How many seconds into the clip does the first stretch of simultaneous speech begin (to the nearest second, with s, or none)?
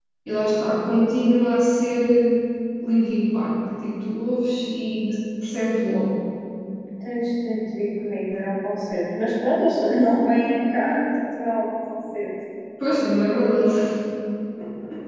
none